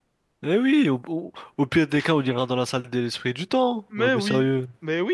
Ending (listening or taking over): taking over